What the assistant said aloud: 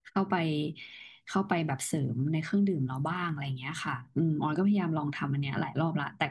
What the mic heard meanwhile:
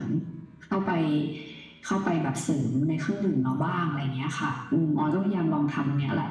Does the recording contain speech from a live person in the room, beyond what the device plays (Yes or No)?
No